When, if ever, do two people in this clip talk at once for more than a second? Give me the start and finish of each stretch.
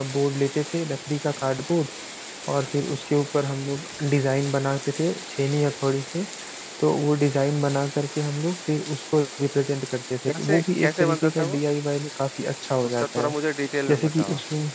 10.3-11.6

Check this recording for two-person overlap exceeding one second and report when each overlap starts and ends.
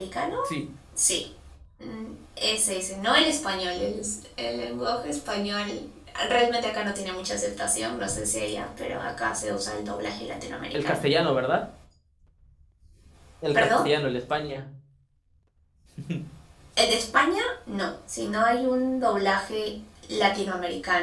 none

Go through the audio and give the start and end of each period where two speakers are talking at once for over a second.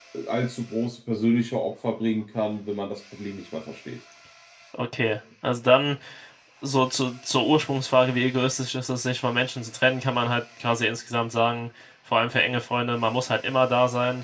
none

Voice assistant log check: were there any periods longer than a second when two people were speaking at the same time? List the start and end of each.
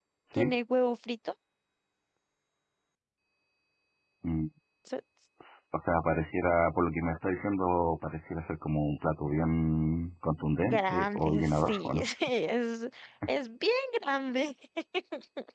10.6-12.1

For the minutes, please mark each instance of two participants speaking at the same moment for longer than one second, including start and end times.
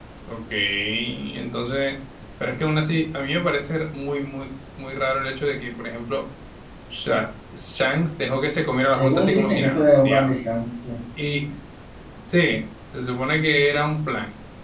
9.0-10.4

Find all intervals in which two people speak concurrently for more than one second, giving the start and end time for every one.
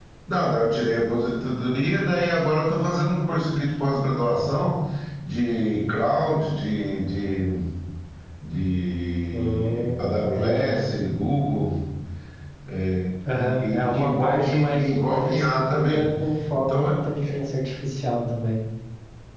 9.3-10.7, 13.4-16.1

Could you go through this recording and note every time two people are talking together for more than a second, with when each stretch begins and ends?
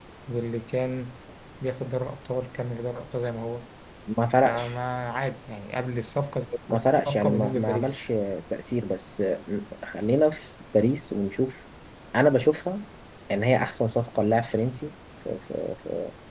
6.7-8.0

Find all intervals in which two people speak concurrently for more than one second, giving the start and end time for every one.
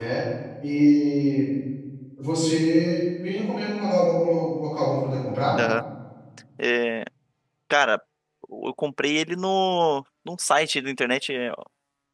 none

